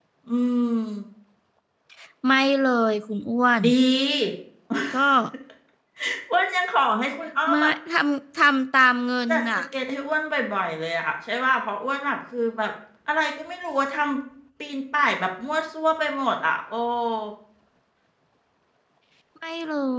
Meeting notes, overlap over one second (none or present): none